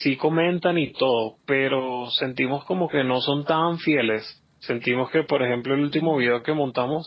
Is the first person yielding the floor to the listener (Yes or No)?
No